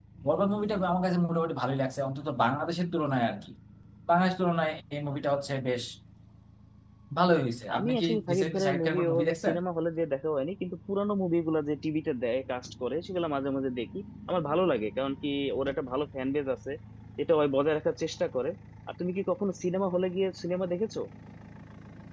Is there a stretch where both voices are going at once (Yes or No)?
Yes